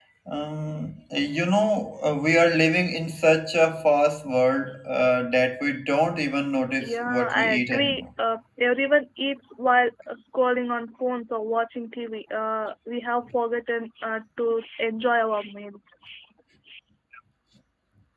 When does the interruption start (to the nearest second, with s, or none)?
7 s